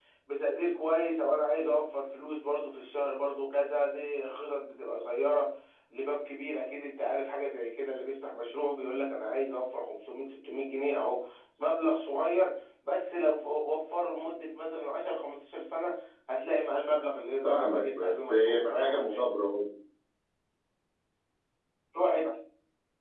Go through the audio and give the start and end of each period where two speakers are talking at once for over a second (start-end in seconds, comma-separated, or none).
17.4-19.2